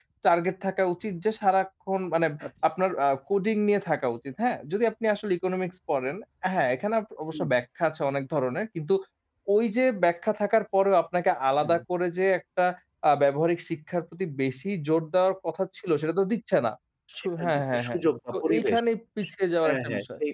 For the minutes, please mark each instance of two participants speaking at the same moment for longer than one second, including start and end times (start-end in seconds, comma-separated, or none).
17.2-18.8